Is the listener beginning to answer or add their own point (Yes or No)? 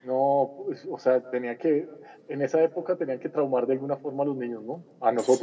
Yes